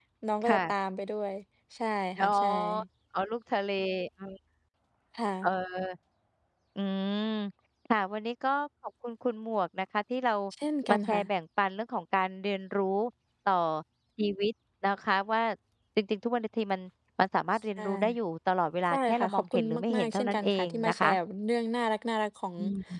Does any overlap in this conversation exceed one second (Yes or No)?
Yes